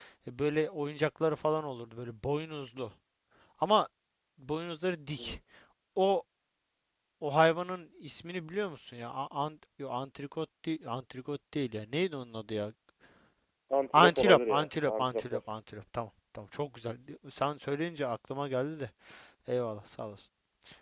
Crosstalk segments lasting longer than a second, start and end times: 13.9-15.4

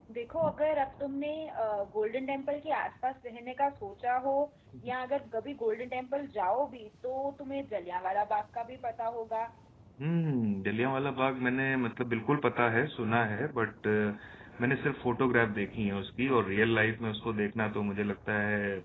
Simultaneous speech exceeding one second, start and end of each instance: none

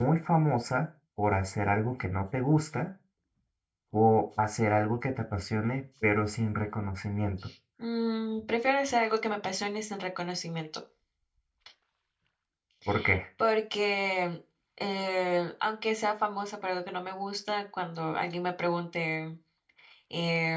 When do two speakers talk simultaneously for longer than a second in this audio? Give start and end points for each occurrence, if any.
none

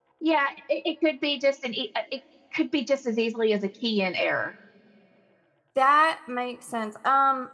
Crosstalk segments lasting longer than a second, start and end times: none

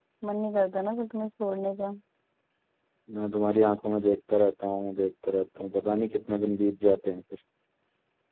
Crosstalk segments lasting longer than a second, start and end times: none

